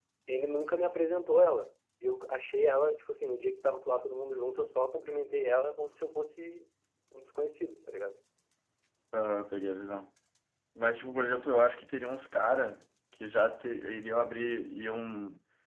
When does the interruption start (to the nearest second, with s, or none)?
none